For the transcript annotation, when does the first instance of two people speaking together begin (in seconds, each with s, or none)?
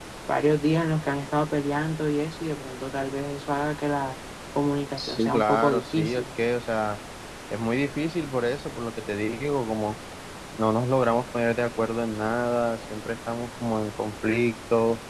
5.0 s